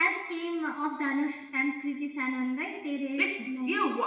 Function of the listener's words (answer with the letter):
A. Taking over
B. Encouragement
A